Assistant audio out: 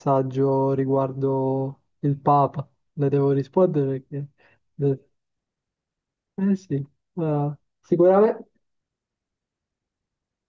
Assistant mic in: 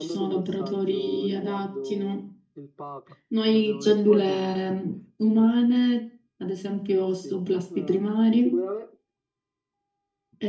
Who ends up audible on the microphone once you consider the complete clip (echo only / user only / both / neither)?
both